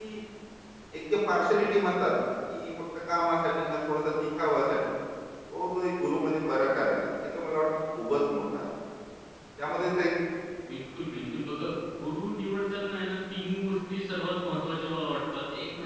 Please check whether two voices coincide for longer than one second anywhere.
No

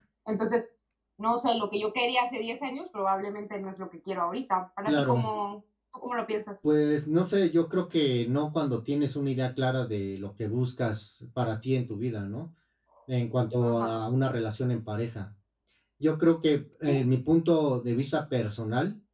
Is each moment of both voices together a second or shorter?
Yes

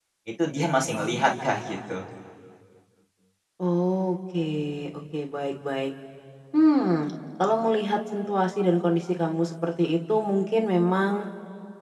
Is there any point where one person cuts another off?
No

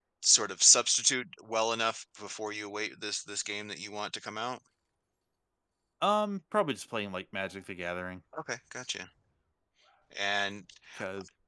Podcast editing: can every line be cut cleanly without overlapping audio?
Yes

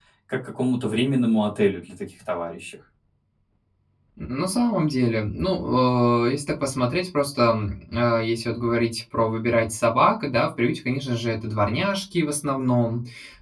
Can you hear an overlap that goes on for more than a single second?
No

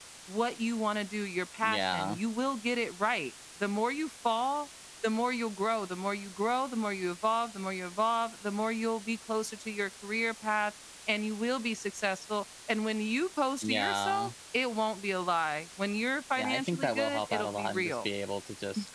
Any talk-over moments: Yes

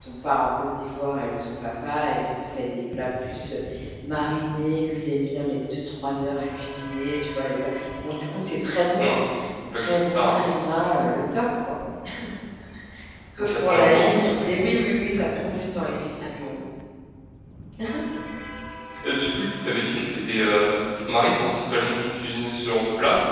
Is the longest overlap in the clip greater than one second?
Yes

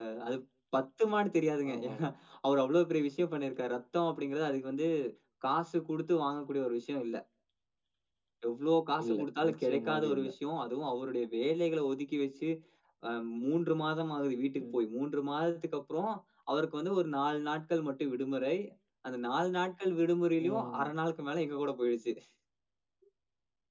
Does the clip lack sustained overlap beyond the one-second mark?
No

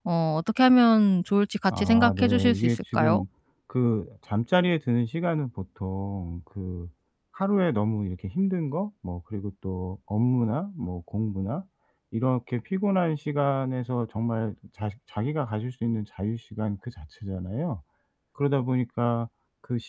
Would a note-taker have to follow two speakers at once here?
Yes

